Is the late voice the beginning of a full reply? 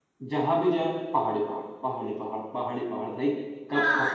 Yes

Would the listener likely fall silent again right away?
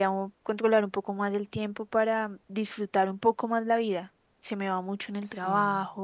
Yes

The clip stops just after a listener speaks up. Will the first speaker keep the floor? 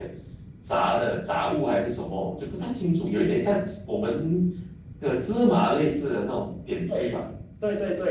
No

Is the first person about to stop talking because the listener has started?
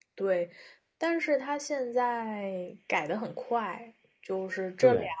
No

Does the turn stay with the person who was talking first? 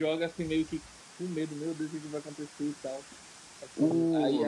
Yes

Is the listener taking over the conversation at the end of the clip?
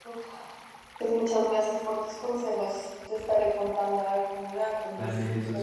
Yes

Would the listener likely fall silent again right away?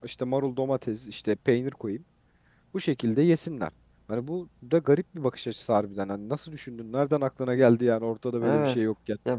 No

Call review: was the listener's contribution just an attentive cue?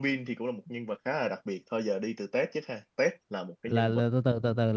No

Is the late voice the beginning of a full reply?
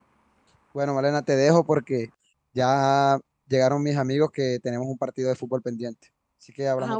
Yes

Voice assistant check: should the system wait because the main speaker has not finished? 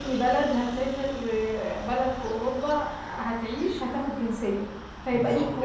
No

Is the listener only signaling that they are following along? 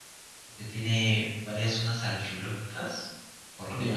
Yes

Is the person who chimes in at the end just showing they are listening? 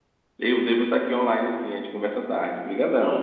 No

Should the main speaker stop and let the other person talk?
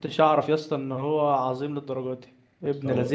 Yes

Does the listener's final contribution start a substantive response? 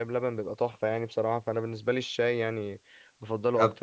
Yes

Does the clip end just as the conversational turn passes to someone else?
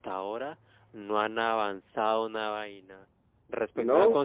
No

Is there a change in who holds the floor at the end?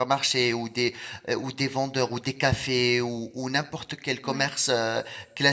No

